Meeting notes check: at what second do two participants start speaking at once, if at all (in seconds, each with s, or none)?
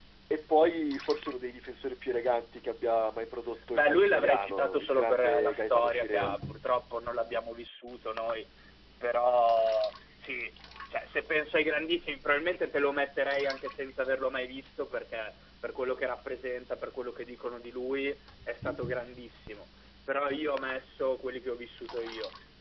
3.7 s